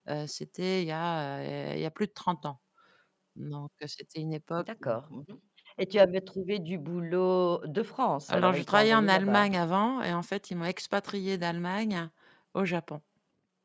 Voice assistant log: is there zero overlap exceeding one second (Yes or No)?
No